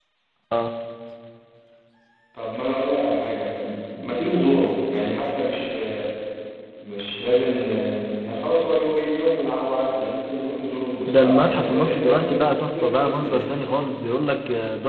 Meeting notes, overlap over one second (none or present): present